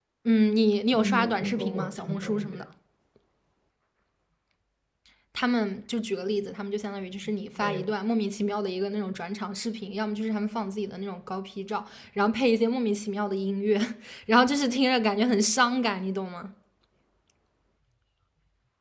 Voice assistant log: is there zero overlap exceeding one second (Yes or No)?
No